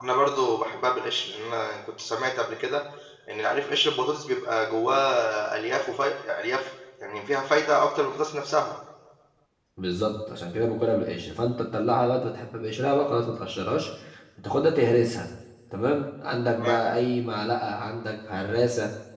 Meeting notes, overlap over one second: none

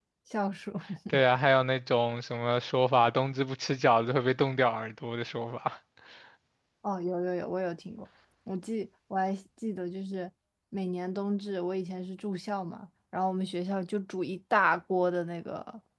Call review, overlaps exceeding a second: none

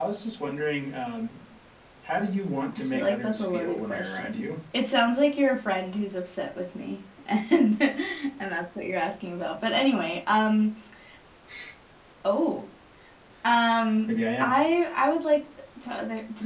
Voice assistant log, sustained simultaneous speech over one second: present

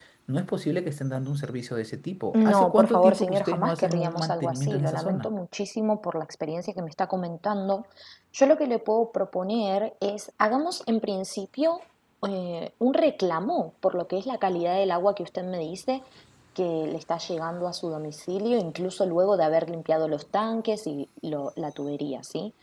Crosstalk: present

